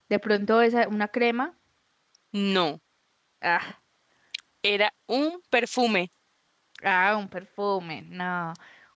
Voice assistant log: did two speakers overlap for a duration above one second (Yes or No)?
No